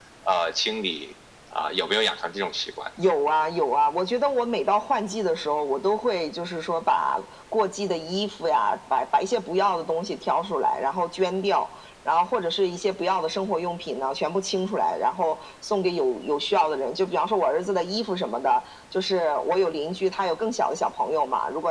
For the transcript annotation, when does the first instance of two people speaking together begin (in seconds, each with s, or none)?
none